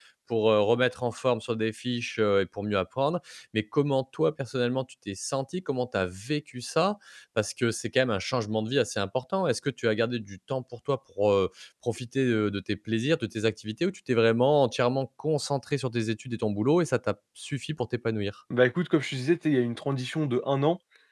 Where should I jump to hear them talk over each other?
none

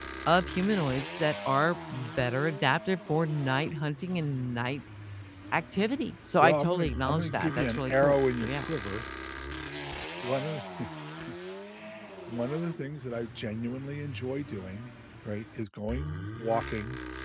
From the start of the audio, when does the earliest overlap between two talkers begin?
6 s

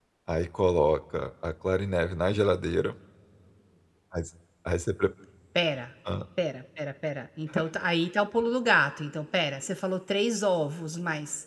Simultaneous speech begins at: none

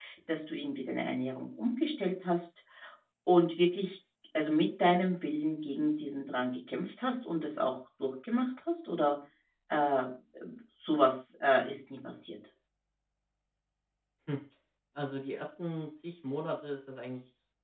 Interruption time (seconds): none

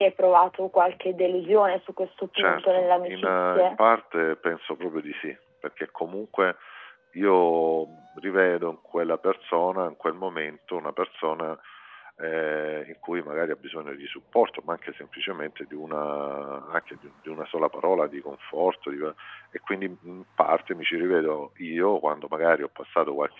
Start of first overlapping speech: 2 s

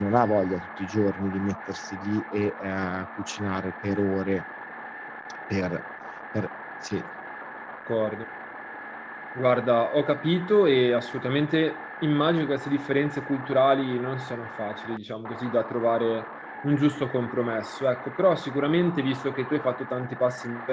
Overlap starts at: none

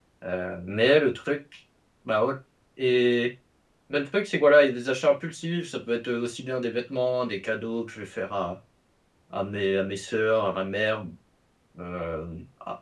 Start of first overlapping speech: none

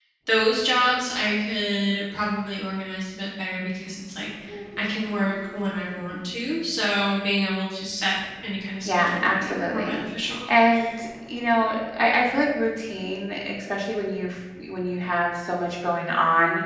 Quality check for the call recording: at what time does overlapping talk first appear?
9 s

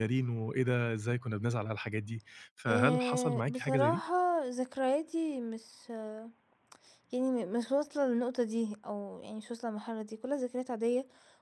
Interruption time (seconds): 3 s

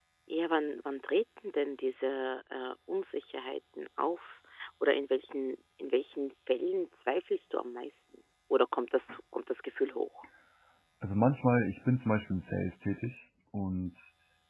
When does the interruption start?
none

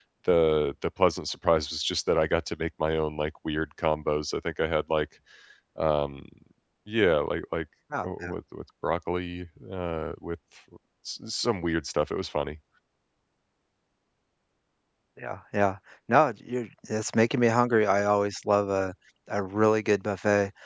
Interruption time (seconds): none

